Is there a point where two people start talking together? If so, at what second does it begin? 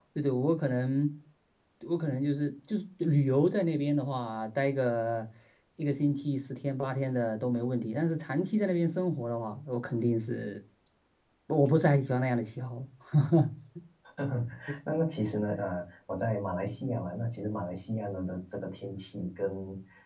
none

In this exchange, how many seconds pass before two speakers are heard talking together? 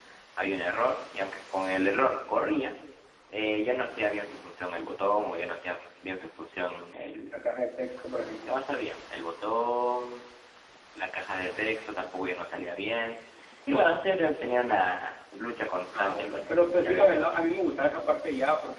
15.9 s

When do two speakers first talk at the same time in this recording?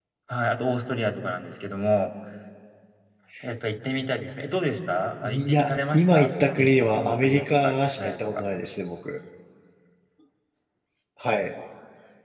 5.2 s

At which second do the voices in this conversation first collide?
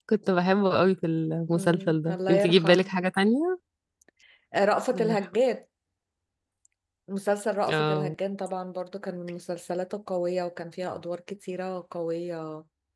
1.5 s

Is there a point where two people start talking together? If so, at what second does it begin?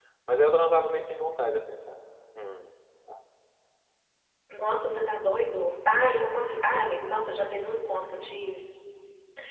none

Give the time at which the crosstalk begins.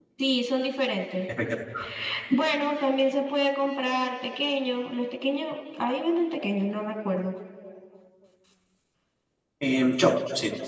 none

